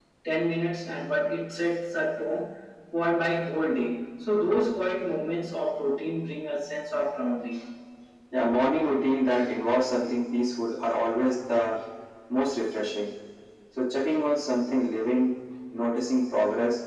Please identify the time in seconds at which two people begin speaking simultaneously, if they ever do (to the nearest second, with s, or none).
none